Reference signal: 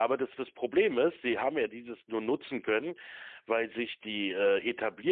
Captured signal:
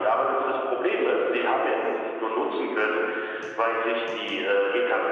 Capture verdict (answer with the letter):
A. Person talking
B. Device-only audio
B